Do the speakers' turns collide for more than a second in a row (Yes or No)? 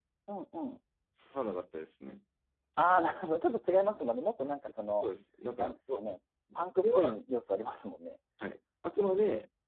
No